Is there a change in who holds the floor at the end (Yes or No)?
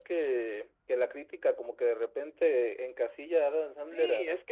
Yes